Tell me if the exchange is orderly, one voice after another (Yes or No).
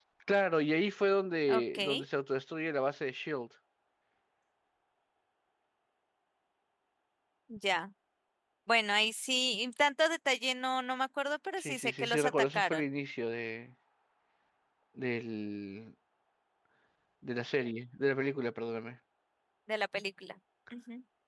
No